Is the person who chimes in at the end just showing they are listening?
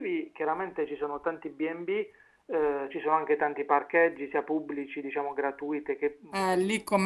No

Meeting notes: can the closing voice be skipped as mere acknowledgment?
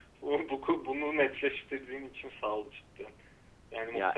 Yes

